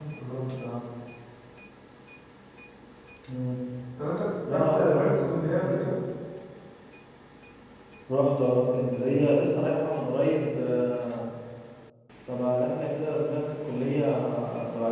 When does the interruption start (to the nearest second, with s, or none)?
4 s